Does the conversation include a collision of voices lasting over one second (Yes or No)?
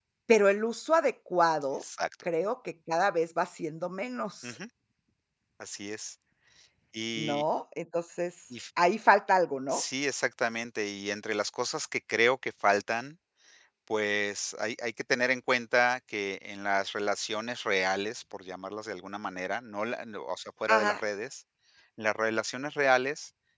No